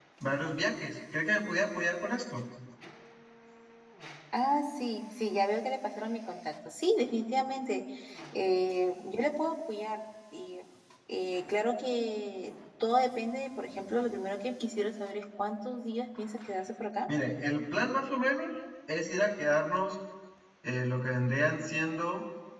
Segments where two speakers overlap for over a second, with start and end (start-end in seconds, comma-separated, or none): none